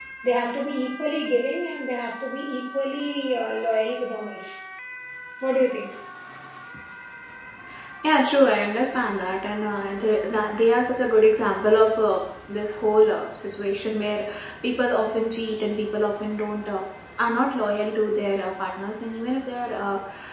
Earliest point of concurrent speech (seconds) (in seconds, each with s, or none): none